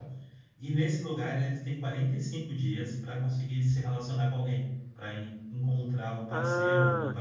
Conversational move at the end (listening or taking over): taking over